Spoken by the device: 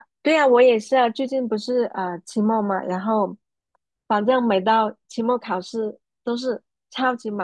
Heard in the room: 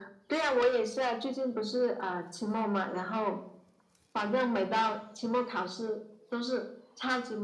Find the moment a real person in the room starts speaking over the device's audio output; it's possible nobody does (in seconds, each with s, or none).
none